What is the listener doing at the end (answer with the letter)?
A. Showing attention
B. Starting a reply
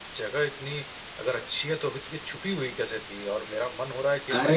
B